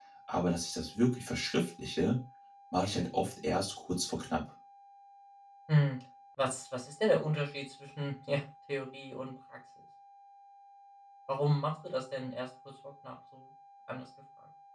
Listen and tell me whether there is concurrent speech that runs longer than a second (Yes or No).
No